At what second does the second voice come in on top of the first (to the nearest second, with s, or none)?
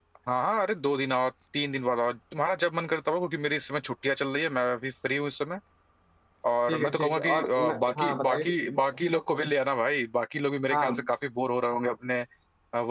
7 s